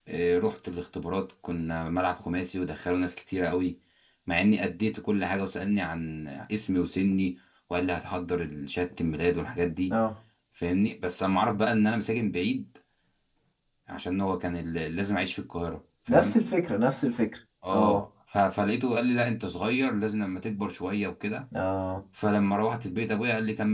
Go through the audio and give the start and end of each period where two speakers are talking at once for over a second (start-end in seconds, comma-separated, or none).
none